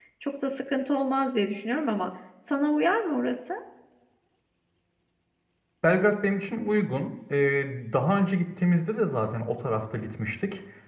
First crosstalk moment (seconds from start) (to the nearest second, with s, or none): none